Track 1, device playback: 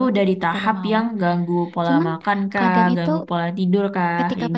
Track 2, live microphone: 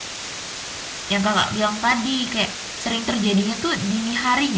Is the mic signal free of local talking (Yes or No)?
No